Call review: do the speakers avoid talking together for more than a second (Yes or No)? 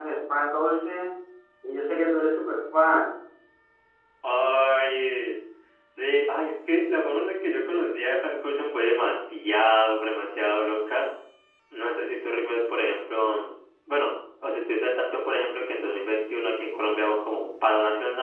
Yes